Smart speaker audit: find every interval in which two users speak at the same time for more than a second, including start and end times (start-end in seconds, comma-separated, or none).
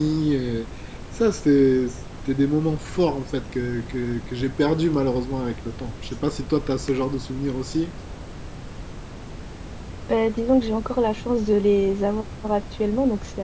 none